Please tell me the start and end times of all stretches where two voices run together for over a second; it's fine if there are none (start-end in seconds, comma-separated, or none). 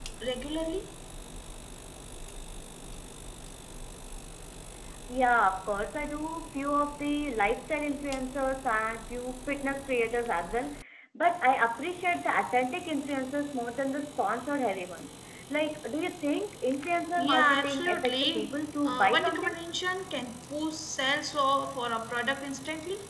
17.2-19.5